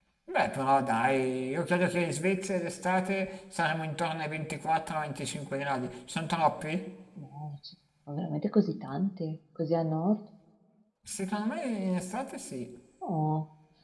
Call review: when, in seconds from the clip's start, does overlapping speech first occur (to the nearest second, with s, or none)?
none